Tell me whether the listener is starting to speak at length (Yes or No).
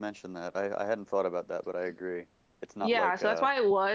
Yes